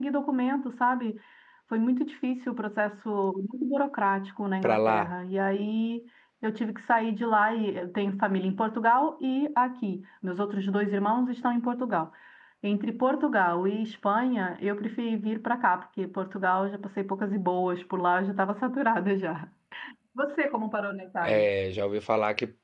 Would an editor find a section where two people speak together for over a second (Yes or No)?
No